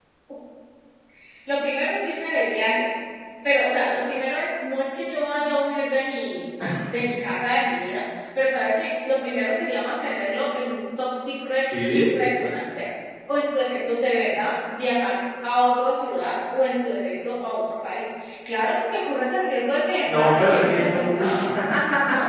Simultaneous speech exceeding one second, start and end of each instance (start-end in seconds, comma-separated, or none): 20.0-21.3